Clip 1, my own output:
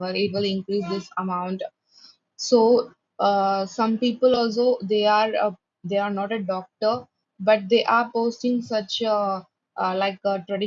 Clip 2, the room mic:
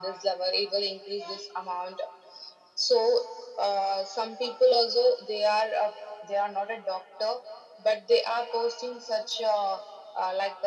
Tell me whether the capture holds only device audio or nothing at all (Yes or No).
Yes